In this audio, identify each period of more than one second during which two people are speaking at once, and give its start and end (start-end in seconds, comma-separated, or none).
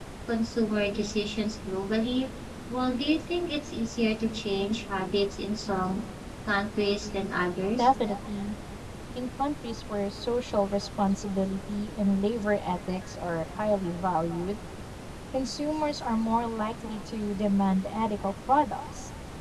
none